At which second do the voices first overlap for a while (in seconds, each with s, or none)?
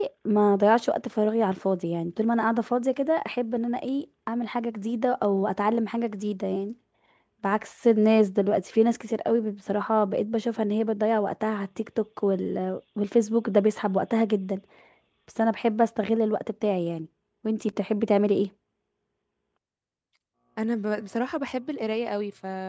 none